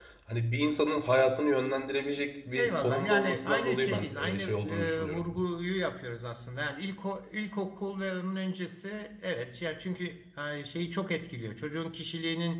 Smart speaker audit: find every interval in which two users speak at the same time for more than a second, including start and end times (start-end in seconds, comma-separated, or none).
2.6-5.2